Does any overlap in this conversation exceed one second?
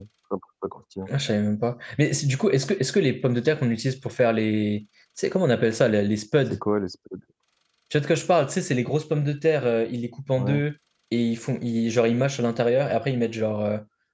No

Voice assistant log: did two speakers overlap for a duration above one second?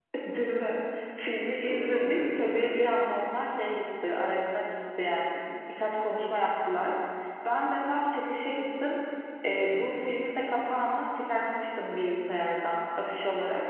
Yes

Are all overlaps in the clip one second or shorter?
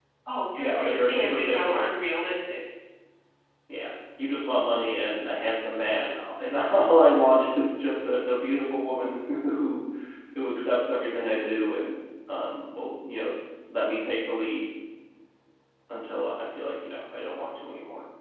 No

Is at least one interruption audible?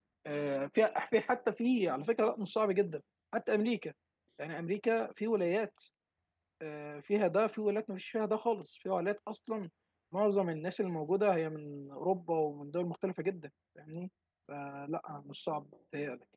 No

